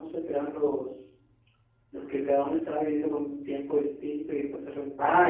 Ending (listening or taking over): taking over